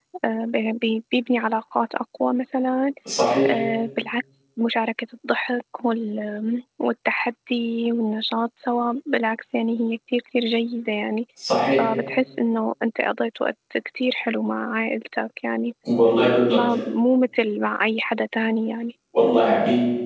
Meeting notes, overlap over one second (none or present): none